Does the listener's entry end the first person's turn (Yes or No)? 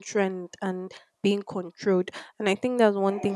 No